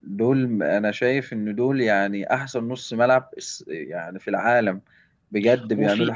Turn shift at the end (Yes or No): No